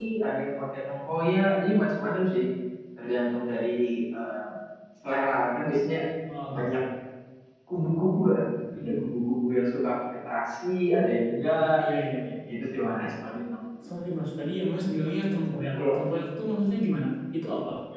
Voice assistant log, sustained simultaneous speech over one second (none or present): none